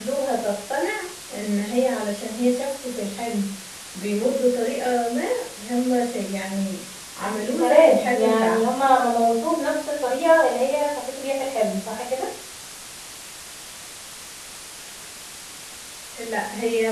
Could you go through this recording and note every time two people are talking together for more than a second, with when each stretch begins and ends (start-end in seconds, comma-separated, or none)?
7.5-8.8